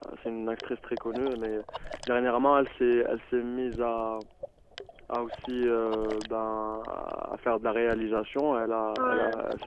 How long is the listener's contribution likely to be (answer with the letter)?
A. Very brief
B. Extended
A